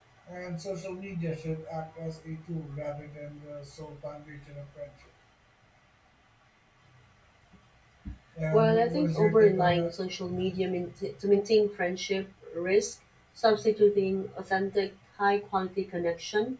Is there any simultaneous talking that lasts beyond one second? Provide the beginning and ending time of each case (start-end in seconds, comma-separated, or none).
8.5-9.9